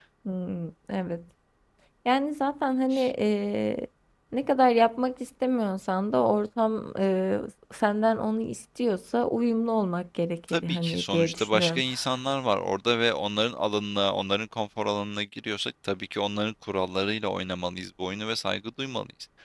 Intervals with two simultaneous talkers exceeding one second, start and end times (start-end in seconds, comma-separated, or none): 10.5-11.8